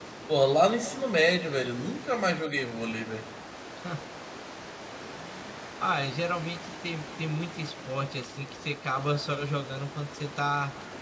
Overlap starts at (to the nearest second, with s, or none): none